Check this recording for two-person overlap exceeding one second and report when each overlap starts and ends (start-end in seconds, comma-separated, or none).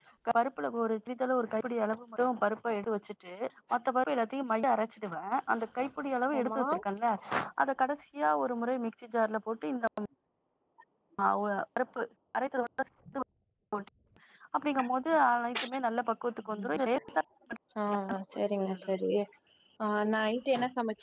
none